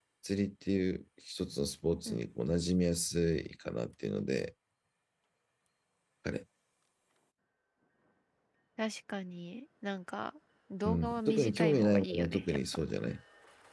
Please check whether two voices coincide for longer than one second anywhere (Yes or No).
Yes